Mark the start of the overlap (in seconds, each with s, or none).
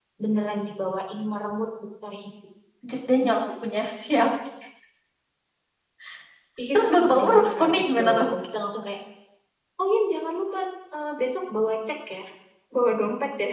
6.7 s